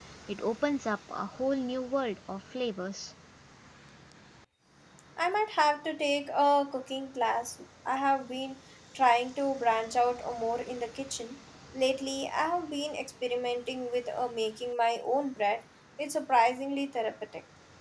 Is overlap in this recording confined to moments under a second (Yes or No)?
Yes